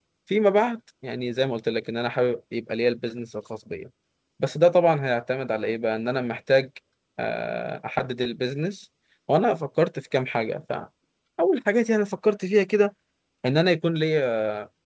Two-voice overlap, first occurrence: none

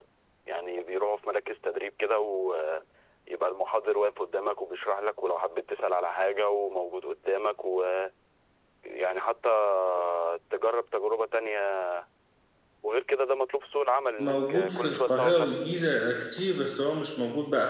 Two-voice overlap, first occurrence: 14.2 s

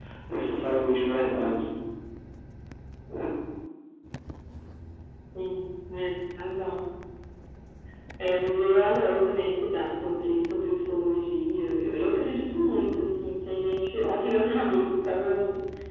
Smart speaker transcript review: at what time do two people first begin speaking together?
none

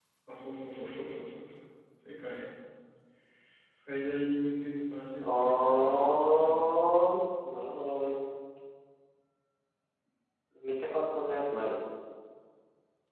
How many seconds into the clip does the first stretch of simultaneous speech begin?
5.2 s

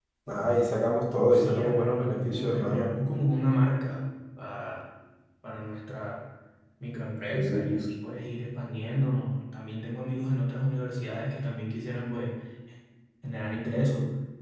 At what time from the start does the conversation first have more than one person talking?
1.1 s

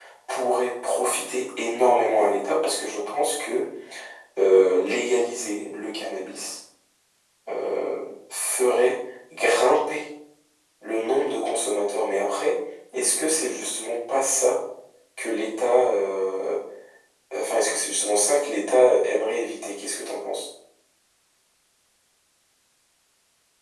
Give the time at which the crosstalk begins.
none

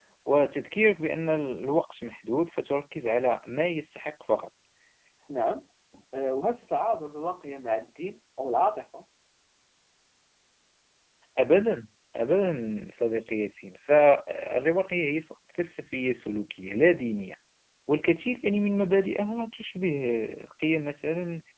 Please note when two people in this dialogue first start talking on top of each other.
none

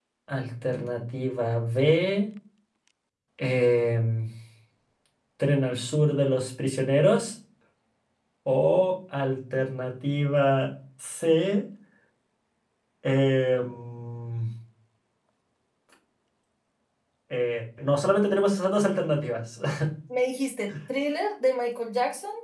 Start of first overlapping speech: none

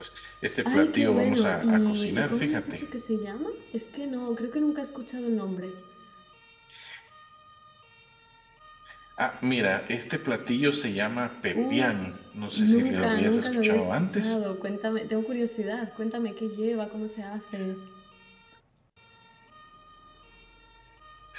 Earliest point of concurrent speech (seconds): 0.7 s

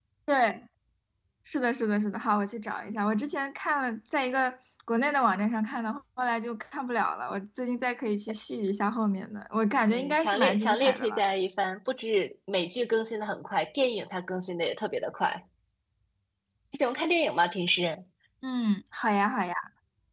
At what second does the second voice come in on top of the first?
9.9 s

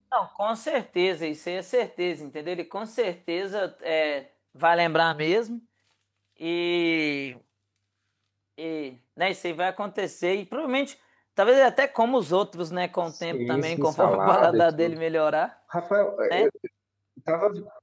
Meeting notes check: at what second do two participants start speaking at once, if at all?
13.1 s

